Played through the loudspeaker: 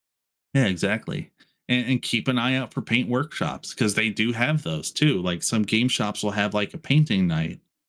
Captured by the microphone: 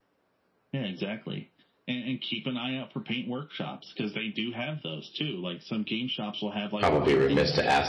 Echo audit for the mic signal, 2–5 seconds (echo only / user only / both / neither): echo only